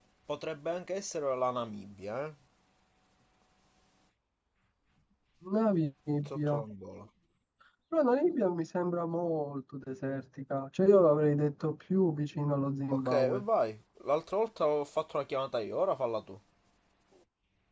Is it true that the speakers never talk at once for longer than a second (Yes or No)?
Yes